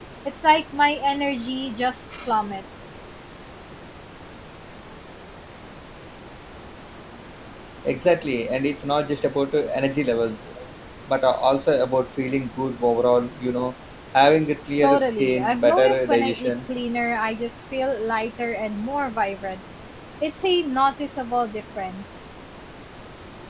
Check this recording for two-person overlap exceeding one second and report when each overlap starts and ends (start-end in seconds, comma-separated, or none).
14.8-16.5